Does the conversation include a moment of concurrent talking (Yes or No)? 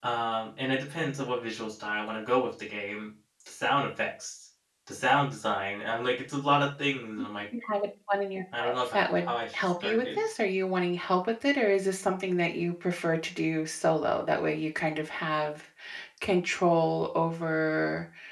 Yes